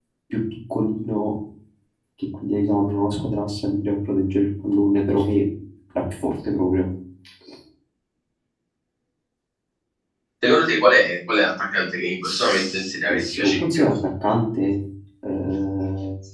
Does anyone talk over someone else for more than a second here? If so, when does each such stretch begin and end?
12.2-13.8

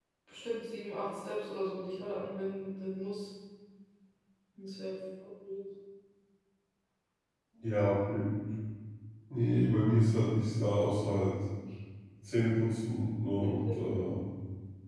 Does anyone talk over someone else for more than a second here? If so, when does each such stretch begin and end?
none

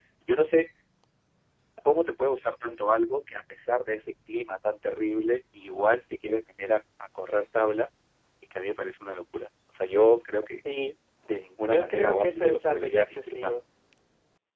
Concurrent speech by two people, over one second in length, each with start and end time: 11.7-13.5

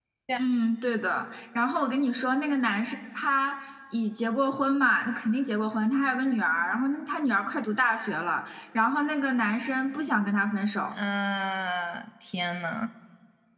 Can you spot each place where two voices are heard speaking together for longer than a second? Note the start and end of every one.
none

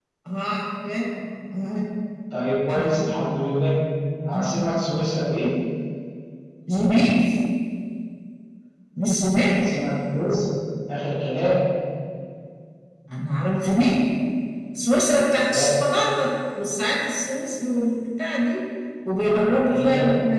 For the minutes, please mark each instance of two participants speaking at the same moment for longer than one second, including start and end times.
none

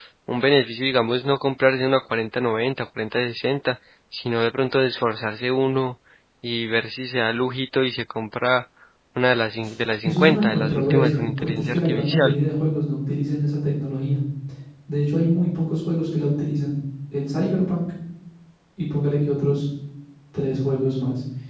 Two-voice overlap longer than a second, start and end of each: 10.0-12.4

